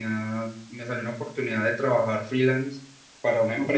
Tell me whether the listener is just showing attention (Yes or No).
Yes